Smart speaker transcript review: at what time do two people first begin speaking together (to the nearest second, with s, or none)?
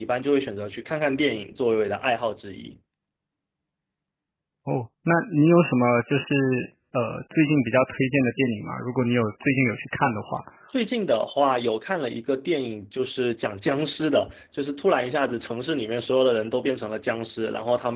none